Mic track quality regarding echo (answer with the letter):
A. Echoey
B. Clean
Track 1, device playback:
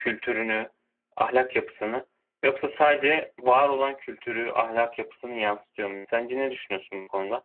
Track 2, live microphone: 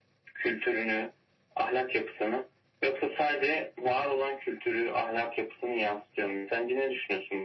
A